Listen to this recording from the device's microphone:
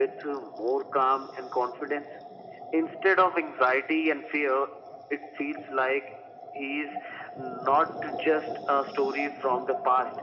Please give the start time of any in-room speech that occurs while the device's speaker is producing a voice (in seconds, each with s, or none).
none